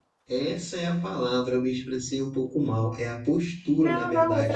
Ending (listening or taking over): taking over